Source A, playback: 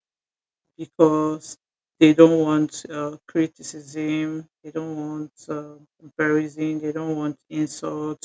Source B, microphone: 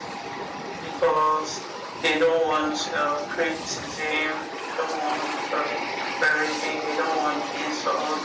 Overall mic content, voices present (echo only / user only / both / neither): echo only